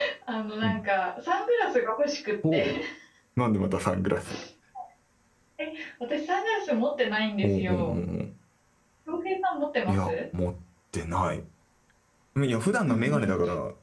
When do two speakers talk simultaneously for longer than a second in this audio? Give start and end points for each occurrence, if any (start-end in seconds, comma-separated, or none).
none